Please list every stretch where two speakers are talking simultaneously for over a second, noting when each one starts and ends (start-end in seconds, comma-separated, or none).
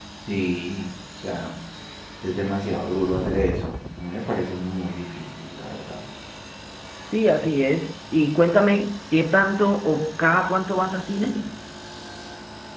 none